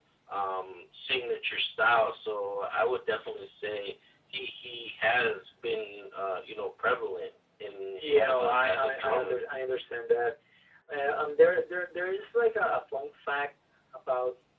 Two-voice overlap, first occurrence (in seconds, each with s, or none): 8.0 s